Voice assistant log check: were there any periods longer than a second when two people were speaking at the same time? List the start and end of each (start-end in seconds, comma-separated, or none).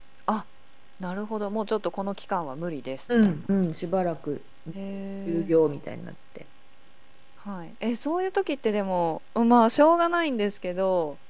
none